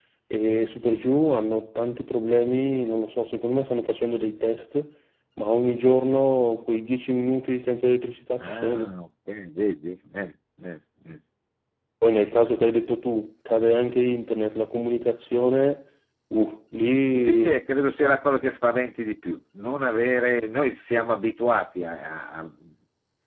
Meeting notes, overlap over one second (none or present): none